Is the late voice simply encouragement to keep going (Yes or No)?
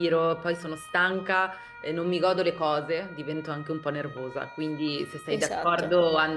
Yes